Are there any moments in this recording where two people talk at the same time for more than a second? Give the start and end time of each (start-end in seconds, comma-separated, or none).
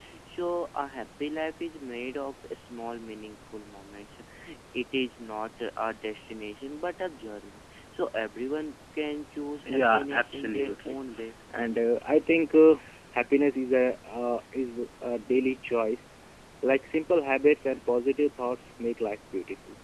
9.7-10.9